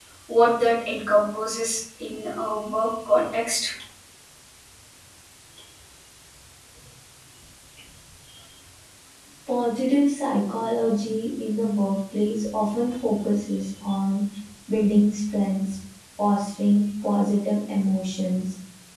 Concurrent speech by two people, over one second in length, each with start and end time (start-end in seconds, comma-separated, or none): none